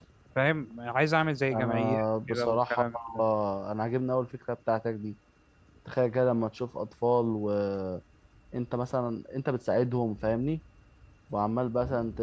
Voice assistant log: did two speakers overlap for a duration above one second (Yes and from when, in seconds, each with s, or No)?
Yes, from 1.5 s